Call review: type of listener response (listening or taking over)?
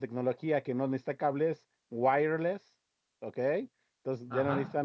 listening